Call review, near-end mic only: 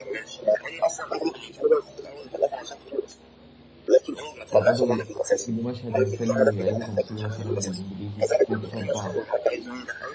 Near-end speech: present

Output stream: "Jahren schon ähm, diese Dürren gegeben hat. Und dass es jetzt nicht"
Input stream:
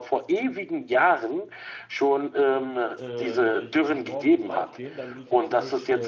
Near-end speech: present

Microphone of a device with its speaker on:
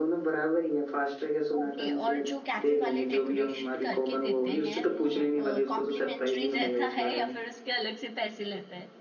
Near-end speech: present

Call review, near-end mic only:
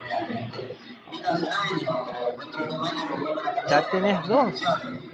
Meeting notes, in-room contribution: present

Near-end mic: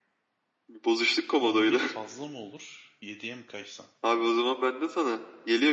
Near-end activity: present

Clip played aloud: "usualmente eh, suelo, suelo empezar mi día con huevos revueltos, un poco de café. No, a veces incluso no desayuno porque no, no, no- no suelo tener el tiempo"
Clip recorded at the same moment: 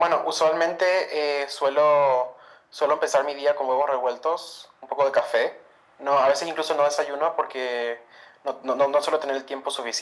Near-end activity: none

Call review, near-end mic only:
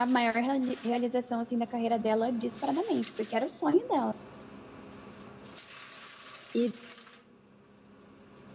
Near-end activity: present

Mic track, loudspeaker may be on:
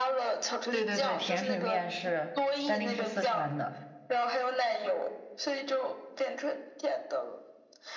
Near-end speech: present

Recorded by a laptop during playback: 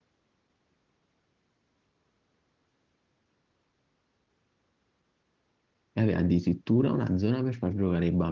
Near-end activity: present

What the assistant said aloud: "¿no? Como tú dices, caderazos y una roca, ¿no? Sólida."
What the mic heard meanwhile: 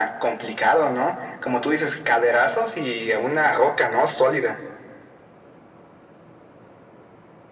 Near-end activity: none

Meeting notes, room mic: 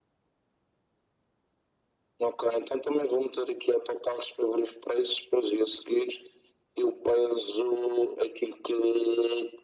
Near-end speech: none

